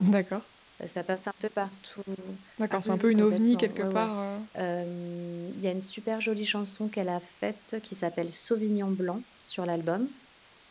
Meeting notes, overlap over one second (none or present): present